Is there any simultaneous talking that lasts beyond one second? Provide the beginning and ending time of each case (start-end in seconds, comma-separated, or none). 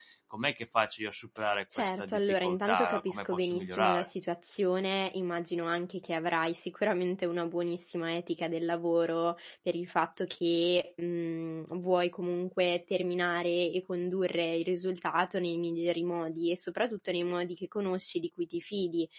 1.8-4.1